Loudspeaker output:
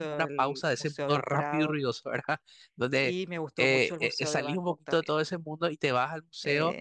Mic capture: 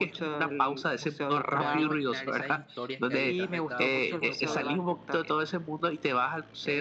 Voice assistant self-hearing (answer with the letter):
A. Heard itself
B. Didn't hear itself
A